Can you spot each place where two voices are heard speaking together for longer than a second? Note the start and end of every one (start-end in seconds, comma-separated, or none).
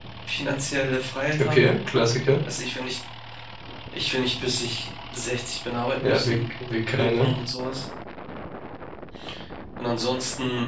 none